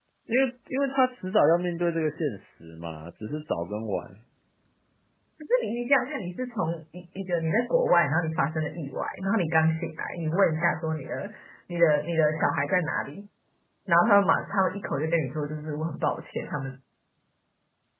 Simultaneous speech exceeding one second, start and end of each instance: none

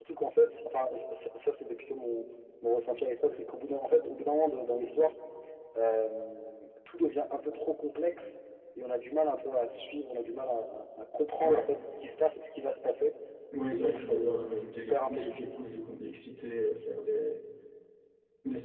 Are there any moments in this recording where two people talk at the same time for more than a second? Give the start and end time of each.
13.7-15.5

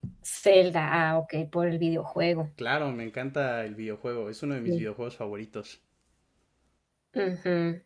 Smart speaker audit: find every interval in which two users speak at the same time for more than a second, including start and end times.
none

